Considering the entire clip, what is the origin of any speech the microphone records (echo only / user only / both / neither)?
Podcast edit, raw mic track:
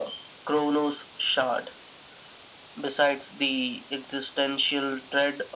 echo only